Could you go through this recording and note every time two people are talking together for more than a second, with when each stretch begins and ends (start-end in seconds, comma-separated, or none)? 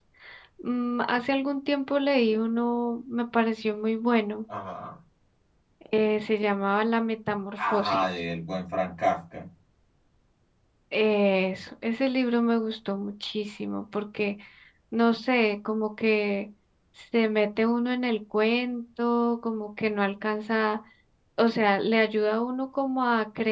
none